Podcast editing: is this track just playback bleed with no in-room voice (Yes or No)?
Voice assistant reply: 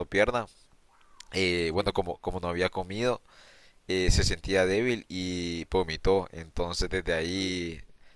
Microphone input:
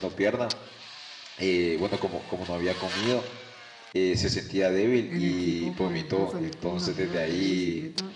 No